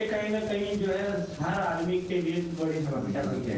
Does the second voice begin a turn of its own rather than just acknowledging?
Yes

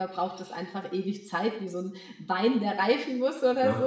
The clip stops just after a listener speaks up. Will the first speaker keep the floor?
No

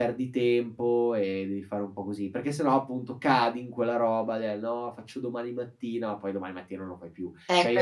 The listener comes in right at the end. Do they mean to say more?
No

